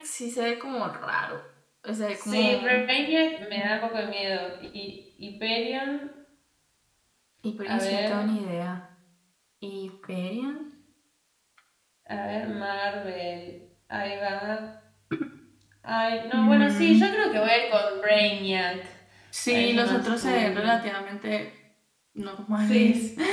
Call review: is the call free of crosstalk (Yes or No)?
No